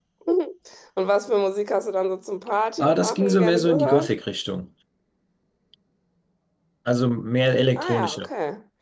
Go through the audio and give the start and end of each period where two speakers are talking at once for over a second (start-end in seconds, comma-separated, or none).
2.8-4.1